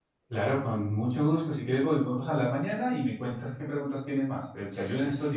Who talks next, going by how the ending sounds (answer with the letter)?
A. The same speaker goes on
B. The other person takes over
B